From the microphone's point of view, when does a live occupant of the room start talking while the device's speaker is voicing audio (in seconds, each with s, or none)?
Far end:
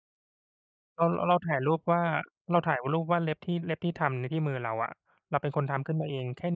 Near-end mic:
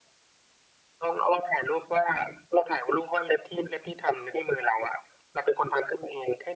none